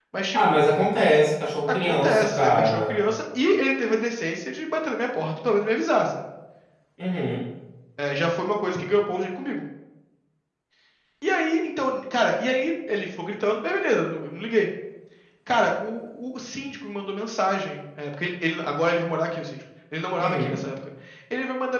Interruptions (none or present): present